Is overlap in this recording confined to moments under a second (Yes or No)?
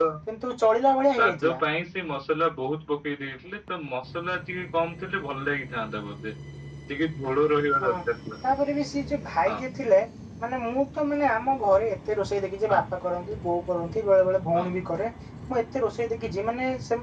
Yes